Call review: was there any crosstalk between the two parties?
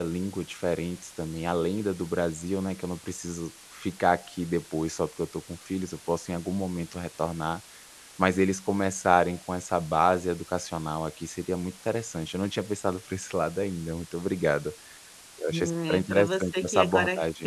Yes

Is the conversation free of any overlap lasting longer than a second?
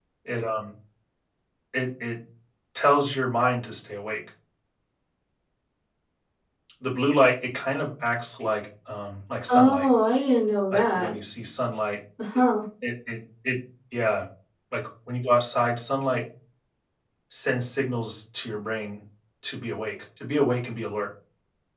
Yes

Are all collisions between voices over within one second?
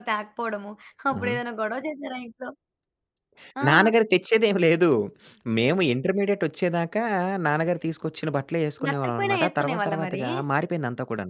No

